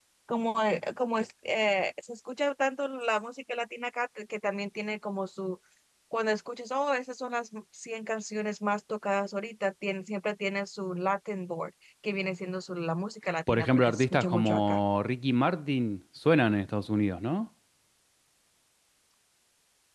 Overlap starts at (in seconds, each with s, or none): 13.5 s